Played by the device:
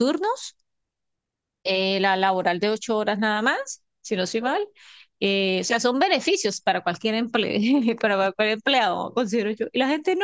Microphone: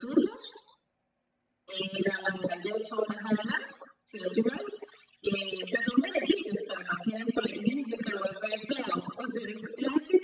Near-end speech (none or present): none